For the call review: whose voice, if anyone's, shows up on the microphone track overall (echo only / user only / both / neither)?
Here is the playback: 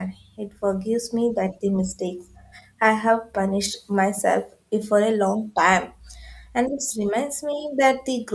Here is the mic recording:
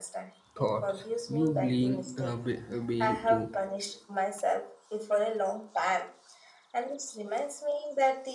both